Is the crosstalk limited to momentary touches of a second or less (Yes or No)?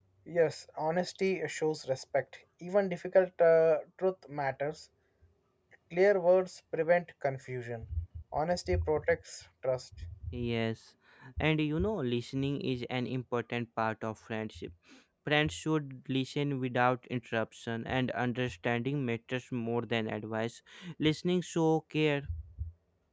Yes